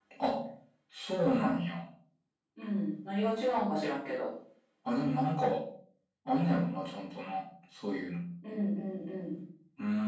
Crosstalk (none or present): none